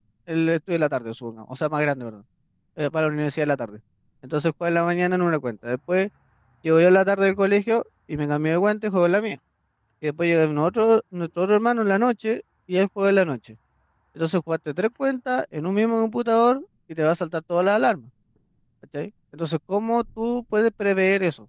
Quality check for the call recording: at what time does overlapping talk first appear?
none

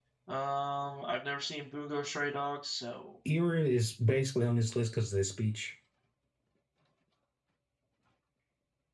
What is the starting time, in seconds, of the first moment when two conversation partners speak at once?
none

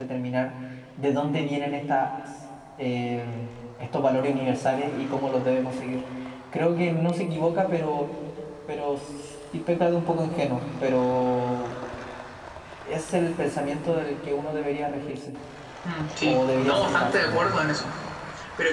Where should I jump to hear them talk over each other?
16.2 s

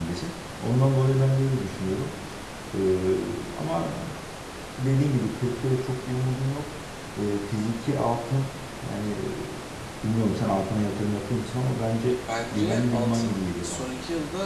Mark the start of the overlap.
12.3 s

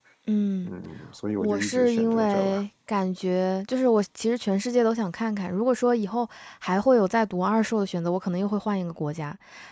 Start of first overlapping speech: 1.4 s

